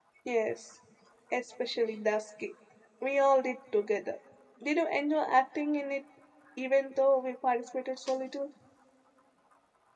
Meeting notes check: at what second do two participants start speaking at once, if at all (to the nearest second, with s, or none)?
none